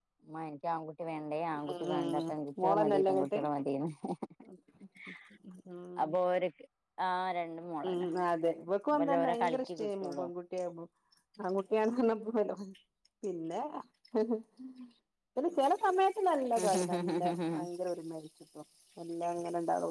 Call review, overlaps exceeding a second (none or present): present